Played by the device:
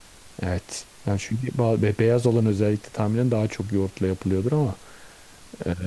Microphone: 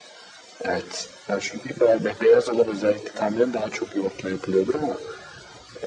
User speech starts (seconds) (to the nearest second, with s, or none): none